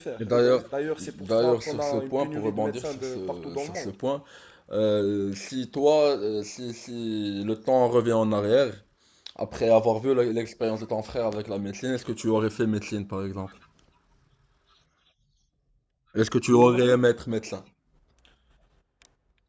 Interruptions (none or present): present